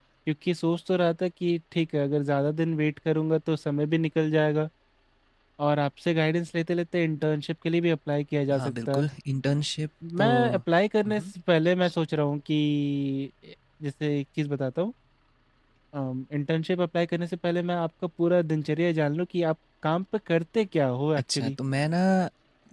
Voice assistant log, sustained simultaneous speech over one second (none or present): none